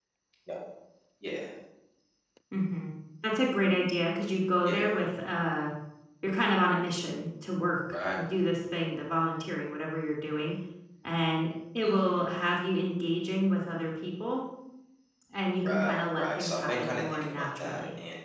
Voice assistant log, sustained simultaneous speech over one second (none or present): present